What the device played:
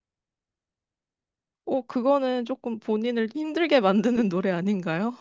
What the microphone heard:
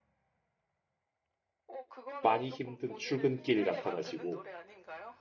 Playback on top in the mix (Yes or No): No